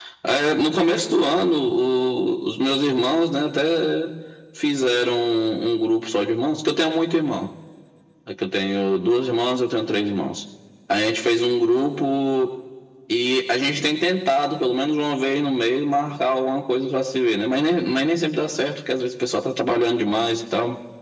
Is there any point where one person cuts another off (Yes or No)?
No